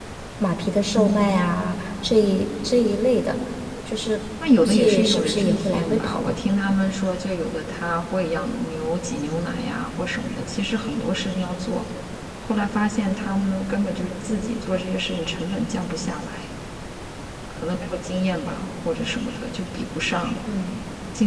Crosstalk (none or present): present